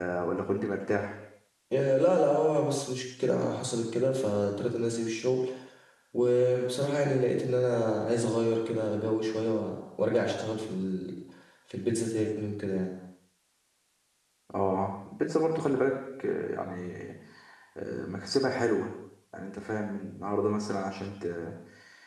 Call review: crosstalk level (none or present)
none